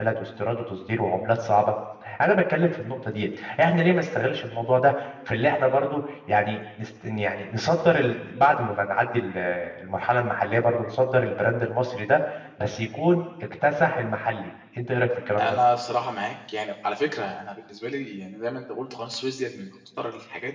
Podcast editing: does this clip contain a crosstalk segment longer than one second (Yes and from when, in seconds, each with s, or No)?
No